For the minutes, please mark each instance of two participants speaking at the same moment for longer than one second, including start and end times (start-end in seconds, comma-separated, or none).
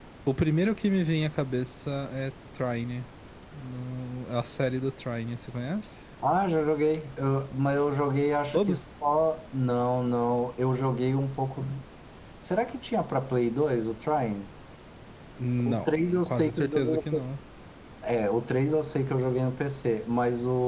15.6-17.0